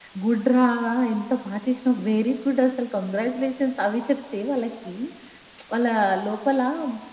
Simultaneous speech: No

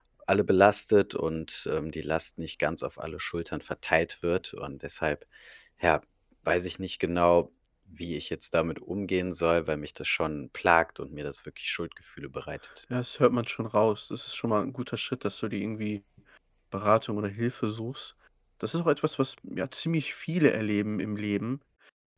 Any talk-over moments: No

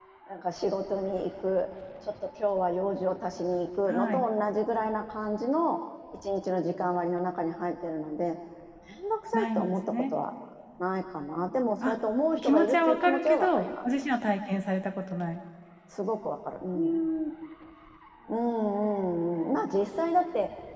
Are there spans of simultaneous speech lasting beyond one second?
Yes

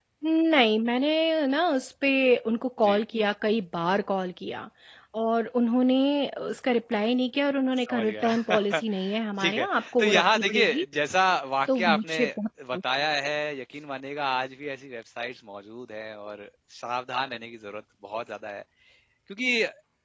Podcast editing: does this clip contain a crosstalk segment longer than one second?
Yes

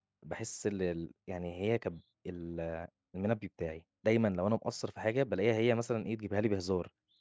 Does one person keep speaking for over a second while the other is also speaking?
No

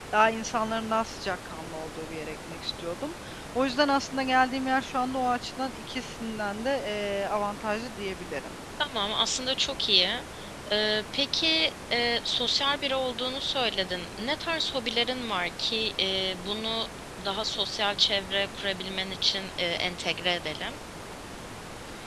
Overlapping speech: No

